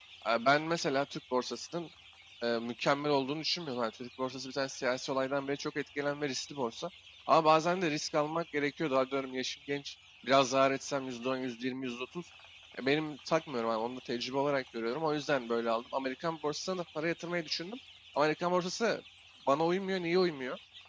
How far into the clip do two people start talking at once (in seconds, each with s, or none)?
none